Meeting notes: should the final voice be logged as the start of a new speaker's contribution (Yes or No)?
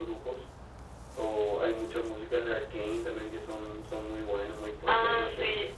Yes